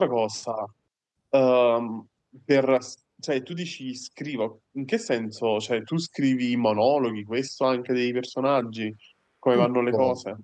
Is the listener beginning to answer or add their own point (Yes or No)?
Yes